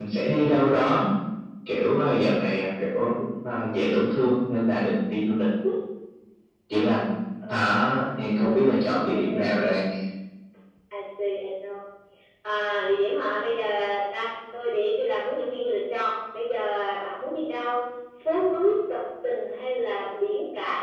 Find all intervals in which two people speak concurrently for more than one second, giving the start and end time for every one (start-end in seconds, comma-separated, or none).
8.4-9.8